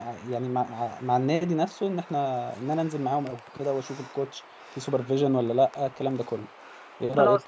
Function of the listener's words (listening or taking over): taking over